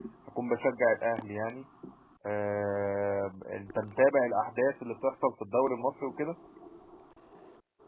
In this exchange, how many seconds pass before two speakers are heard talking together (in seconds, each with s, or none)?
none